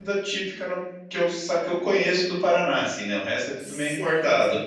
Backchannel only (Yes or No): No